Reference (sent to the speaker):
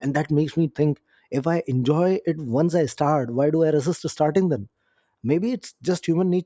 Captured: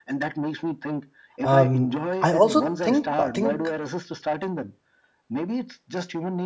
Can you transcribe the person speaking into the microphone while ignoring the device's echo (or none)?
um, I also think bathing